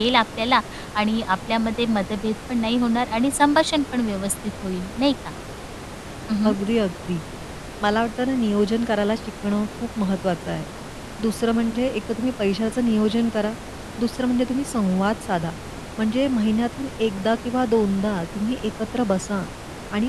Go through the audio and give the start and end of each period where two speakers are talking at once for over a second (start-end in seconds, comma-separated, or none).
none